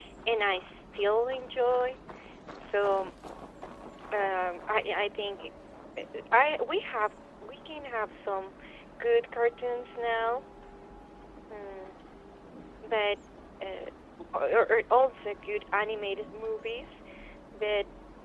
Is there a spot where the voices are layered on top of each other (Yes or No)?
No